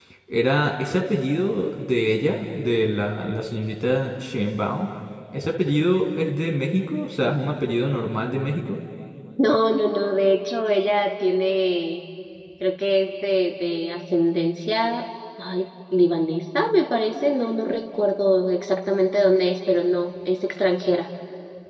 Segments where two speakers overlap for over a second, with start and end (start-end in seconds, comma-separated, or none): none